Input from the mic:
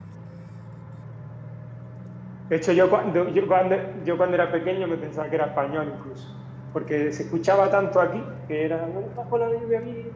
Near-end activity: present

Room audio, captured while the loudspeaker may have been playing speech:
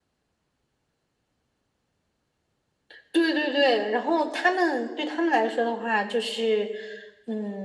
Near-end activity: none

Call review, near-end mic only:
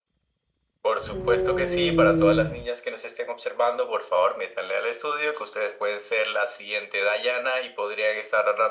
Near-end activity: present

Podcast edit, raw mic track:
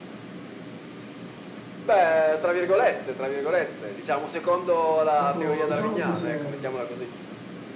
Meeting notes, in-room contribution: present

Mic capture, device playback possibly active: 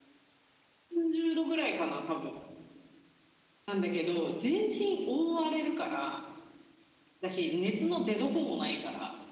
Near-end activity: none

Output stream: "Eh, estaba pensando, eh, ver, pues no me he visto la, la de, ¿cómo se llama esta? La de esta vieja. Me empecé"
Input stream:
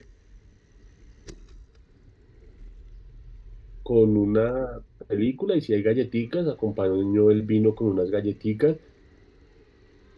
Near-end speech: present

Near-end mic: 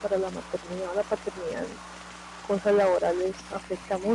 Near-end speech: present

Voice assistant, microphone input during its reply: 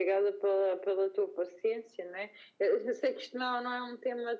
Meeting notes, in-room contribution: none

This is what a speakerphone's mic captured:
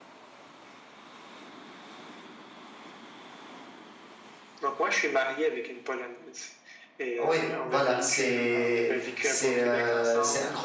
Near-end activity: present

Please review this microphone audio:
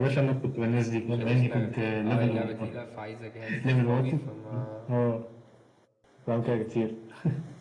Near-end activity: present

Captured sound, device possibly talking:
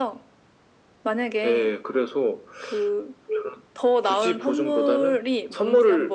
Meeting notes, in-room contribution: none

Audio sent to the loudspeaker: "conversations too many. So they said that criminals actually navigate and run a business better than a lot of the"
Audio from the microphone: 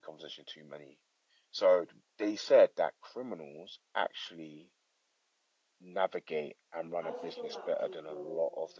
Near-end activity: present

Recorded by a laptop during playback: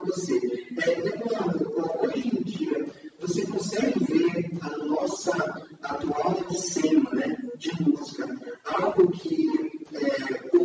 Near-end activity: none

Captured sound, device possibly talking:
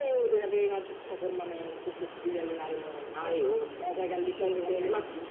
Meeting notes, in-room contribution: none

